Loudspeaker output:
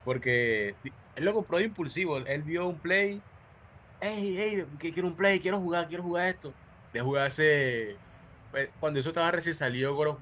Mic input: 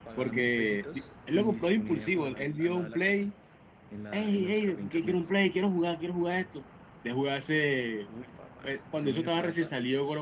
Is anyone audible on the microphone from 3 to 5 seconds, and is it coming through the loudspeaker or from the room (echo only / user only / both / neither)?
both